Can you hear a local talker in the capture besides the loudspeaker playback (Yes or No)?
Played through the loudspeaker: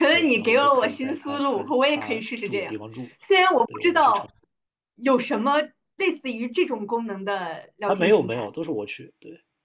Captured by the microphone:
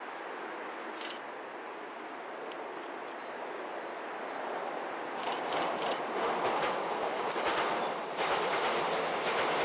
No